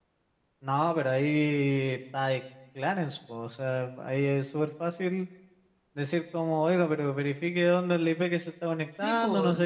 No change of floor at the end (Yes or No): No